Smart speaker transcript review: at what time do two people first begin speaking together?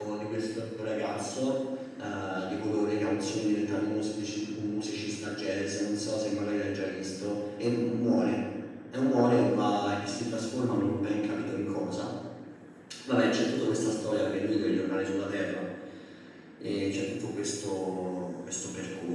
none

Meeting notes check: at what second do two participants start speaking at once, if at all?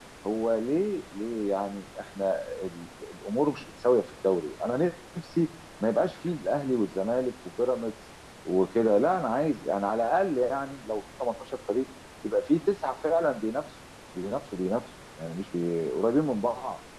none

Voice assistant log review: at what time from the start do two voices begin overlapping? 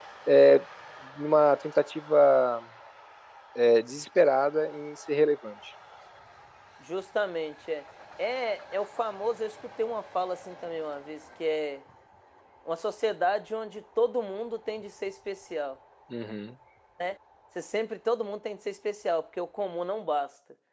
none

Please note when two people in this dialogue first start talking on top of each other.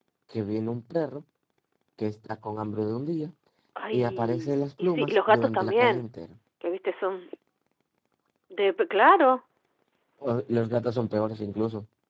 3.9 s

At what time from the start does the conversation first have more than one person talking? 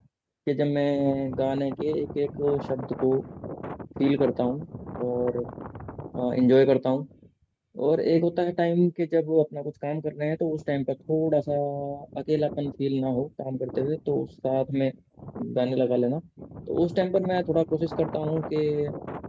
none

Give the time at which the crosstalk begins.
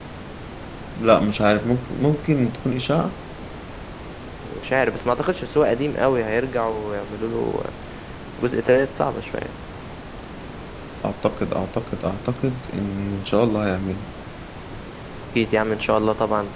none

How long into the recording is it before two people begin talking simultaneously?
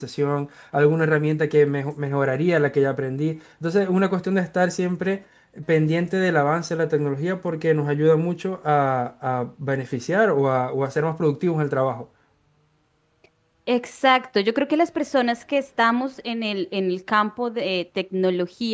none

